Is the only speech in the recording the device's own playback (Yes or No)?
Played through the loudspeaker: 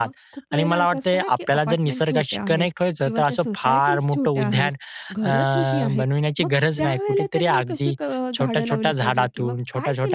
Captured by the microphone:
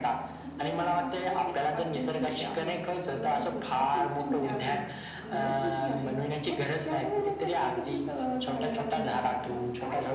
Yes